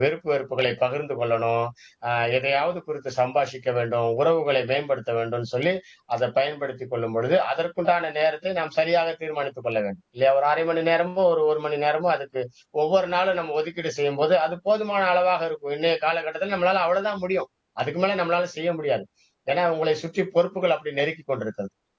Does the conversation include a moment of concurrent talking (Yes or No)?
No